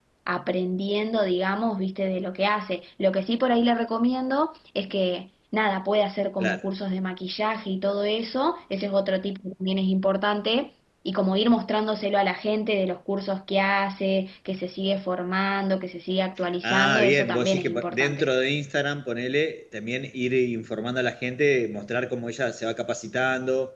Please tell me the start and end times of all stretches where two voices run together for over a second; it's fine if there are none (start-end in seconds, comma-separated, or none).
16.6-18.3